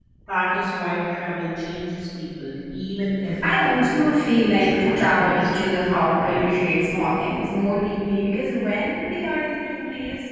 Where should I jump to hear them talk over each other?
3.4 s

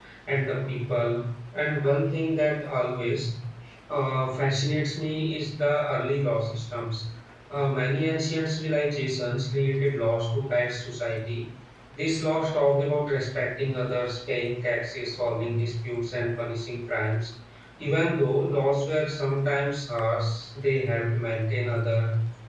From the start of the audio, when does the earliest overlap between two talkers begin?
none

